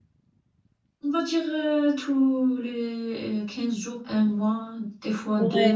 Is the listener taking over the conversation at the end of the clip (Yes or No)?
Yes